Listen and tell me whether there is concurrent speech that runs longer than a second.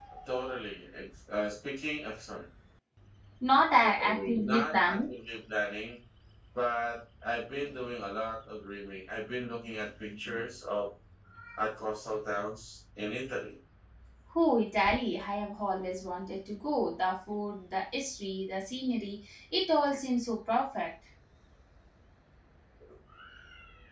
Yes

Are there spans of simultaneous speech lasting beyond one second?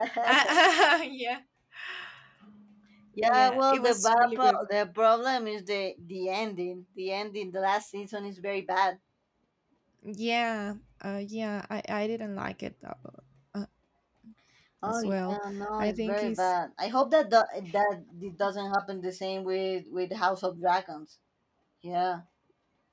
Yes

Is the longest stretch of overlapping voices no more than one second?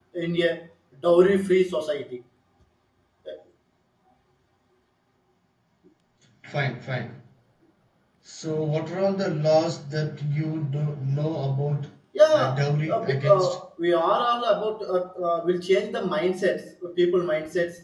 No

